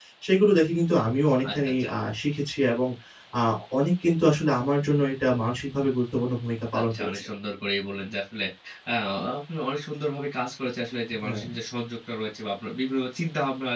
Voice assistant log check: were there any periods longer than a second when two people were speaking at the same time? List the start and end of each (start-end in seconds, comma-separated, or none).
none